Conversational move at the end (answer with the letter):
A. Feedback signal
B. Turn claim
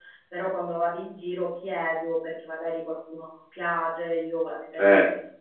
A